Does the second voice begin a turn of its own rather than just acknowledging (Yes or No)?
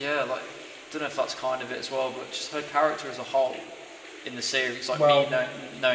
No